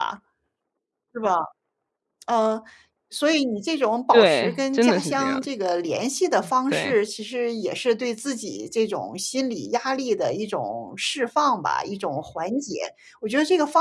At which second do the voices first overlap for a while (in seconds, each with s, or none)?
4.1 s